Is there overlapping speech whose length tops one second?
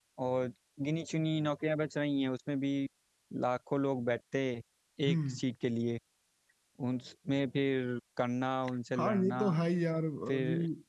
No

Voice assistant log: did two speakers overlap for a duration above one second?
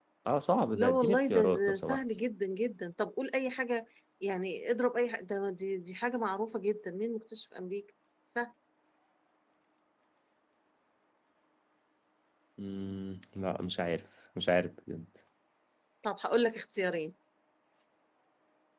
Yes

